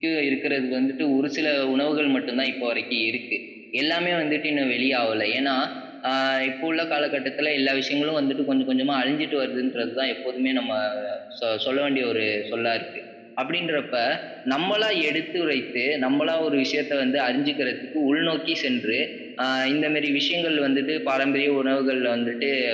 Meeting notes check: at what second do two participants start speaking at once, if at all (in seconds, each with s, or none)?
none